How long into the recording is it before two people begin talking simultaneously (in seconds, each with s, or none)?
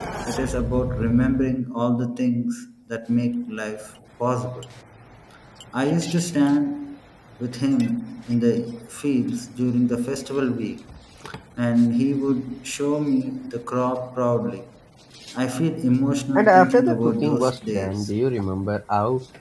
16.4 s